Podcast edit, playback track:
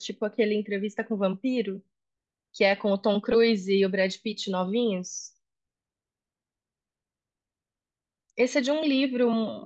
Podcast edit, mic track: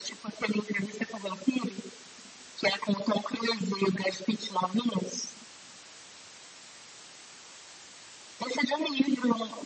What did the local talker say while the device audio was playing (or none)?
none